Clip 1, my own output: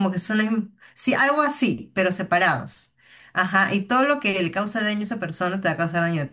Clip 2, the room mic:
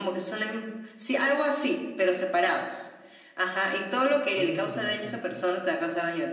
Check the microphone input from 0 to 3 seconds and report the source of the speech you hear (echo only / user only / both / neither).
echo only